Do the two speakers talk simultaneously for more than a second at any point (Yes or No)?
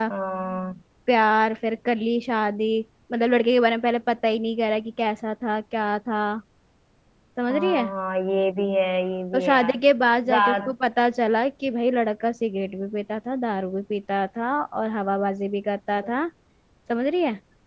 No